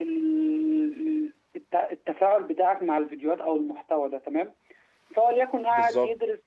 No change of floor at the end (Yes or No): Yes